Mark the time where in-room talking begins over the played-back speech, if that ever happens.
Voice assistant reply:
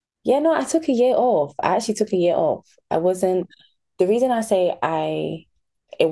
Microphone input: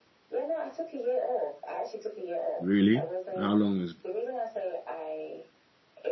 2.6 s

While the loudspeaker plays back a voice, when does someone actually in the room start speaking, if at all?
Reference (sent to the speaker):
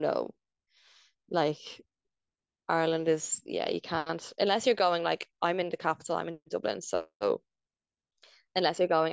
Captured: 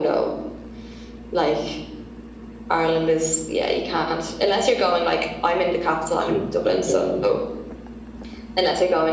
6.1 s

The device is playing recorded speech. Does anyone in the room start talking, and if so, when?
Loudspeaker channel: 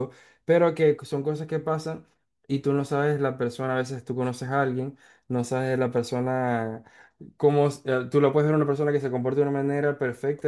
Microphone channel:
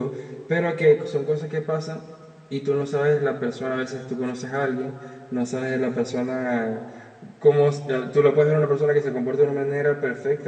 none

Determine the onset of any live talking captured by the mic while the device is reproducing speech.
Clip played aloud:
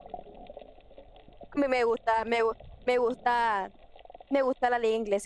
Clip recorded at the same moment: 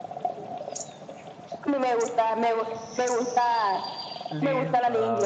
4.3 s

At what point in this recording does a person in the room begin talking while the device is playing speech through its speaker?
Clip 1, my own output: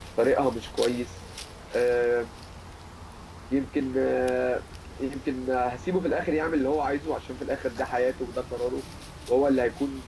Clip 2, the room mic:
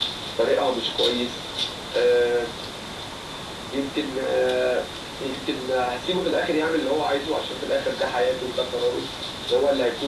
none

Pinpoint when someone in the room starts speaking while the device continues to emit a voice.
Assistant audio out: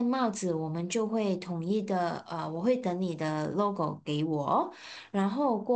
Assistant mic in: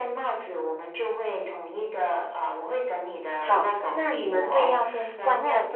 3.3 s

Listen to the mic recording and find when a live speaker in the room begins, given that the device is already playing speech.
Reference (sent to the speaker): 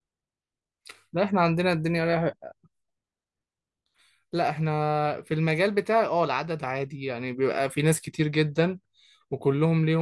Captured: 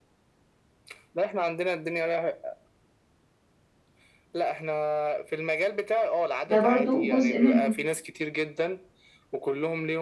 6.5 s

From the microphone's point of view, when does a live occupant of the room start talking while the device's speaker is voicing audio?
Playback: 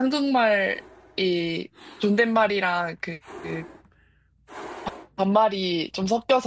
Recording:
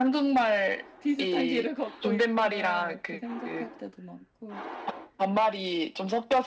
1.0 s

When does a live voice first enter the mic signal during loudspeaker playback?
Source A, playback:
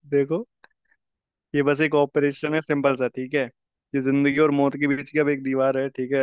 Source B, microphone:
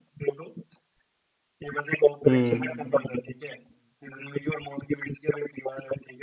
2.3 s

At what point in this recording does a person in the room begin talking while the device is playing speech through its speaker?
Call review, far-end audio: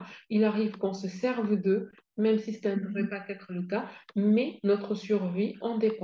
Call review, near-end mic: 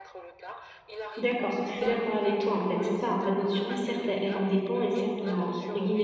1.2 s

